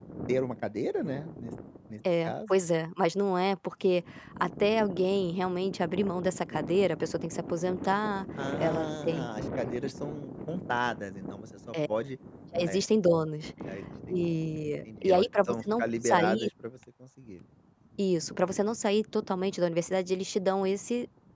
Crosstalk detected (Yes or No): Yes